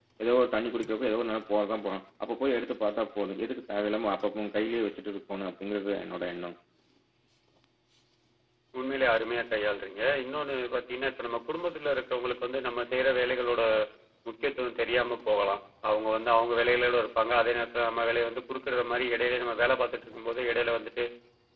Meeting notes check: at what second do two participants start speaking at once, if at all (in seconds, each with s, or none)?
none